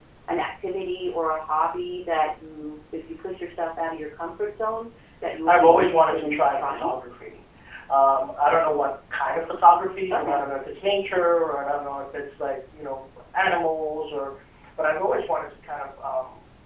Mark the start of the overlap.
5.5 s

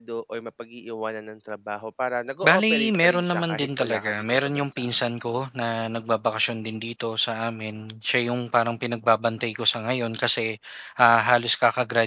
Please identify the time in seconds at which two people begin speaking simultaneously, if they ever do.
2.4 s

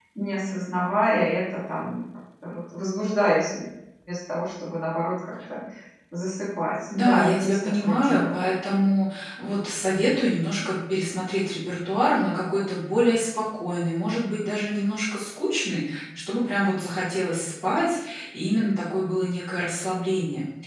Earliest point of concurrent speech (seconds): 7.0 s

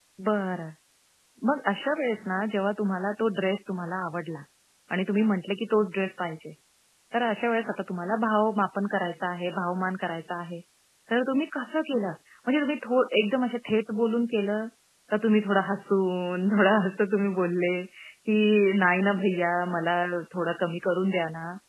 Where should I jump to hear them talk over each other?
none

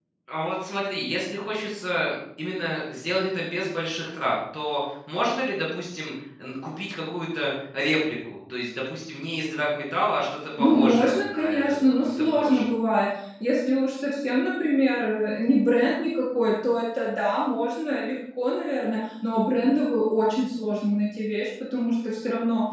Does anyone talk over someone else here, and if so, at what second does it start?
10.6 s

